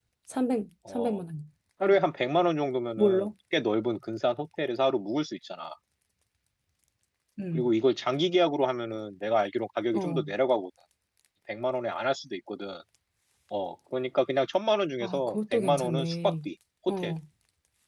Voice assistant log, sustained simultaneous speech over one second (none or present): present